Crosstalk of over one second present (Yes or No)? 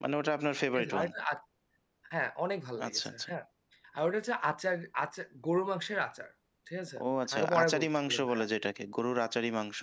Yes